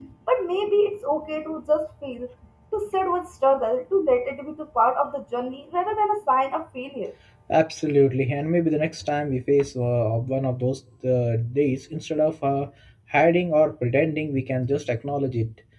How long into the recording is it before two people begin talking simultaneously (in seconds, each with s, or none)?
none